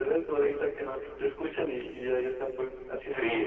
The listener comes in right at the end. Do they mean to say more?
Yes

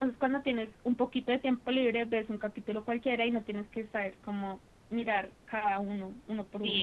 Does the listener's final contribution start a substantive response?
Yes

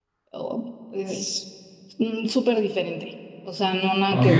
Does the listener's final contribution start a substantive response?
Yes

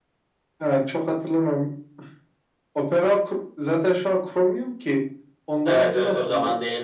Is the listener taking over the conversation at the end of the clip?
Yes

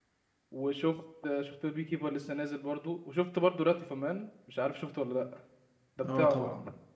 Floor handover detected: Yes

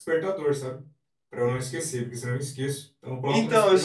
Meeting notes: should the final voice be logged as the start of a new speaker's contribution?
Yes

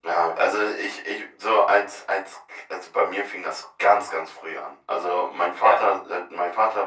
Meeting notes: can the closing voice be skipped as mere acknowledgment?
Yes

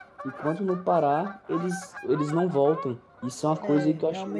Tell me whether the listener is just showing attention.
No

